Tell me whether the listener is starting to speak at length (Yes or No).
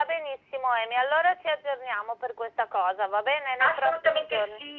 Yes